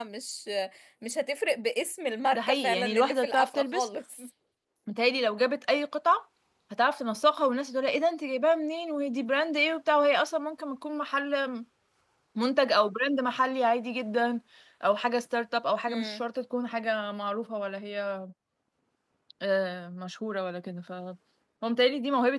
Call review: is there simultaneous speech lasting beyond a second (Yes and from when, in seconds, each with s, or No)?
Yes, from 2.3 s